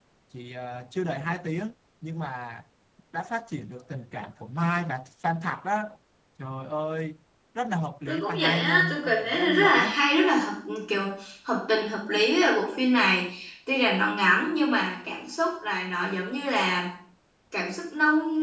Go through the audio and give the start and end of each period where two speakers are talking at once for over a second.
8.1-9.9

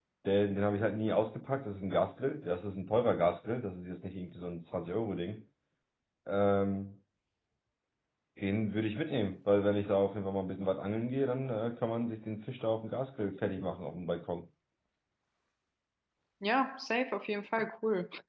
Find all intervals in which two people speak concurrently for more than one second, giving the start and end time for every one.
none

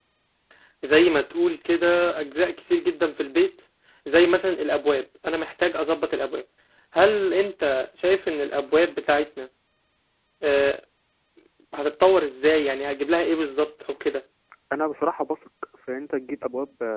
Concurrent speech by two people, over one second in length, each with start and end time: none

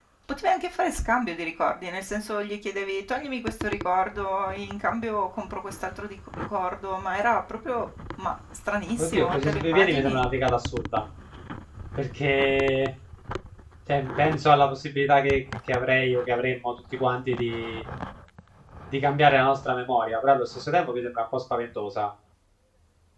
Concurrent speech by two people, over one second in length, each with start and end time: 9.0-10.2

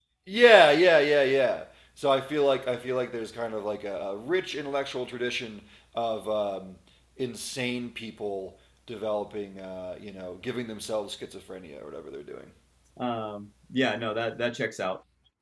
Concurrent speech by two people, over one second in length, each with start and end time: none

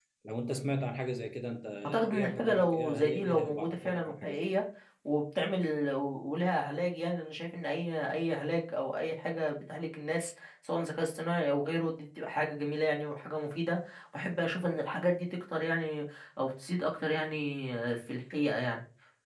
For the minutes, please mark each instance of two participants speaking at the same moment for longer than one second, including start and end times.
2.0-4.5

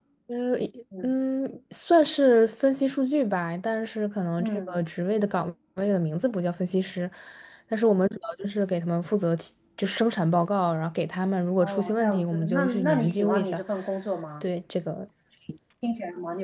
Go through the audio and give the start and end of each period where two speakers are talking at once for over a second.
11.6-13.6

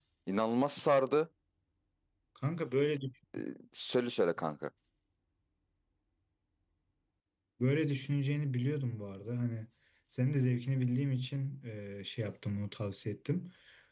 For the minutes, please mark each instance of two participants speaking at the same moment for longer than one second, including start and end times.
none

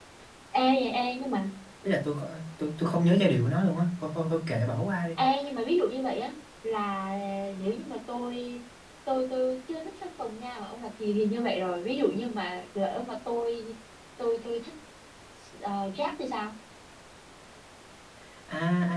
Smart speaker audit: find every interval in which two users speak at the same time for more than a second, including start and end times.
none

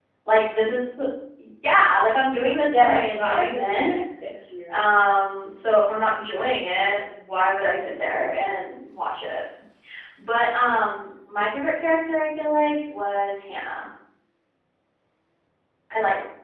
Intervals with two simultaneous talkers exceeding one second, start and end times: 2.6-4.0

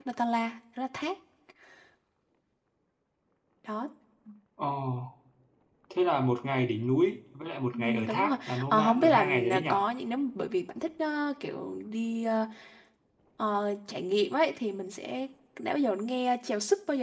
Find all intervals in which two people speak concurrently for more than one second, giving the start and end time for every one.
7.7-9.8

